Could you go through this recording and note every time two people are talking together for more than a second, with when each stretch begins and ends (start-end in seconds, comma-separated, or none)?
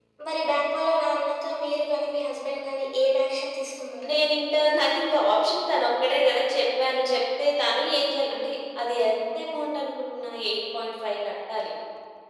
none